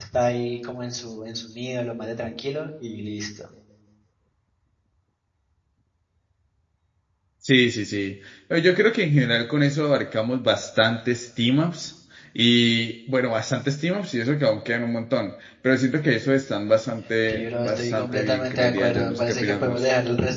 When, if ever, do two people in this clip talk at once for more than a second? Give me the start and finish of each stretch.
17.3-19.8

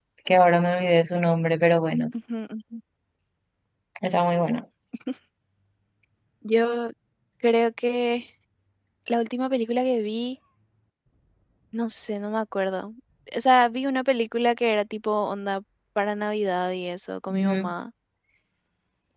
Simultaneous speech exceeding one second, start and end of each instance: none

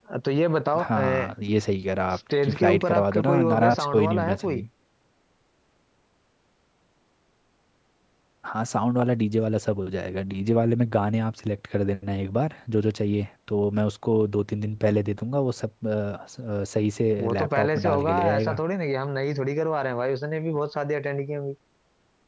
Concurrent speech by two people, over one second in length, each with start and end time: 2.1-4.6, 17.2-18.6

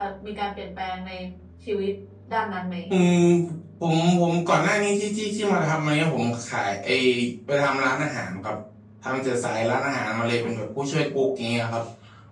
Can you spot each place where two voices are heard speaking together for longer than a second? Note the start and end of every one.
none

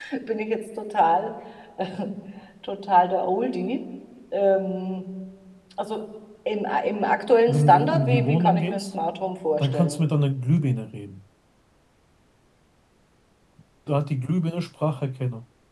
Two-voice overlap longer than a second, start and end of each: 7.5-8.9

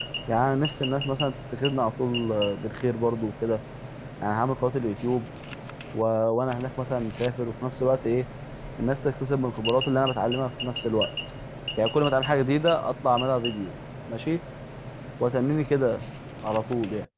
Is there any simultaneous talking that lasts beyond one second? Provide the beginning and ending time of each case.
none

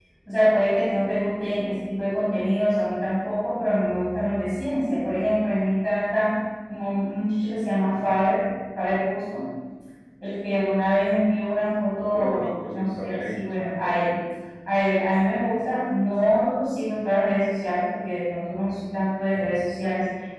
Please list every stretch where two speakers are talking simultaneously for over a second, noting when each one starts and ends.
12.1-14.1

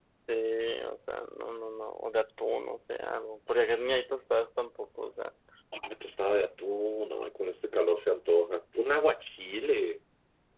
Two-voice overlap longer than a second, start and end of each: none

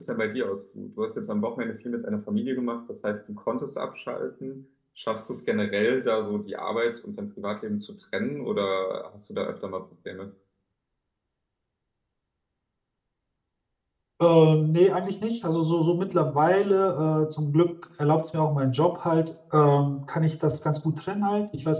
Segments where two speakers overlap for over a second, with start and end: none

